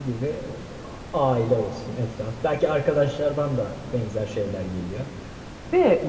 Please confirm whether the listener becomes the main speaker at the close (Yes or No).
No